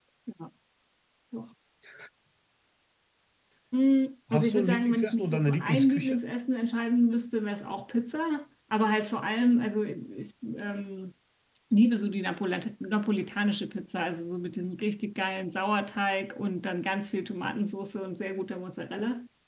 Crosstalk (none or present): present